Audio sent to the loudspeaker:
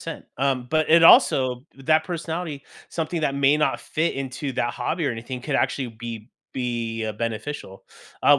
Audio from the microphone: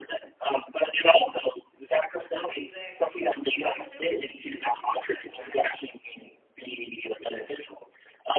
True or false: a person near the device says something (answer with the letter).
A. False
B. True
B